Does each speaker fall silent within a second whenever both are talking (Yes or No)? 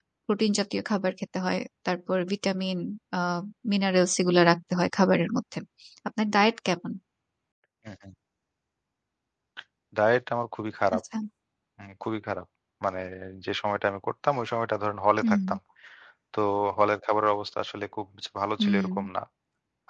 Yes